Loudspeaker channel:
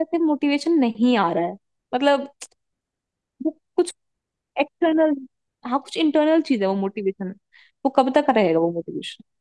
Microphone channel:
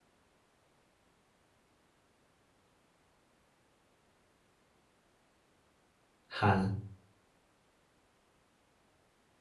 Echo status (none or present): none